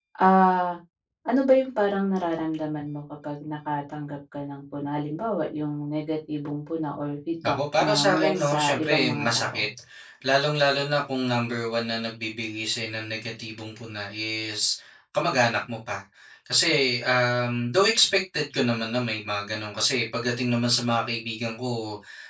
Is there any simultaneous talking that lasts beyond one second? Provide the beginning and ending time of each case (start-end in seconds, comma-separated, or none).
7.4-9.6